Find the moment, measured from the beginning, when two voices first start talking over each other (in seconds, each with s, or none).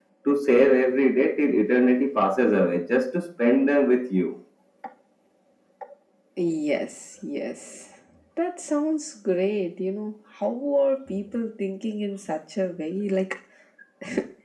none